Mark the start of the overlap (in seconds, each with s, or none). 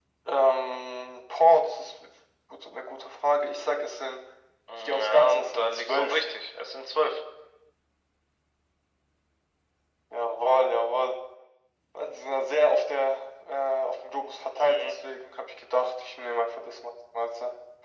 4.8 s